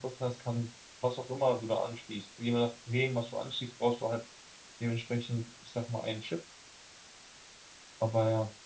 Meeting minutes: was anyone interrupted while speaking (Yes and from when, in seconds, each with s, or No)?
No